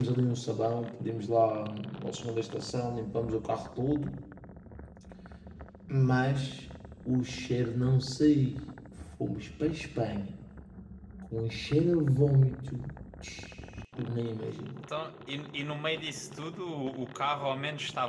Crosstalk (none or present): none